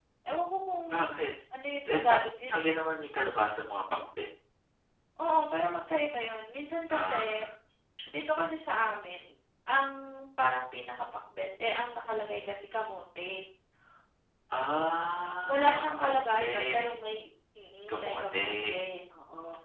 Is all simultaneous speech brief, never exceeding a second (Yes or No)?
No